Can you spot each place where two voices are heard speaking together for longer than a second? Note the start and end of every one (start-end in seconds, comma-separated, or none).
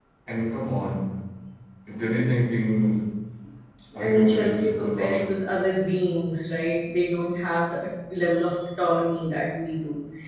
4.0-5.3